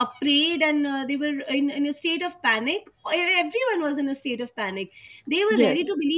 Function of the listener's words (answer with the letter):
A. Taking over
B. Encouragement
B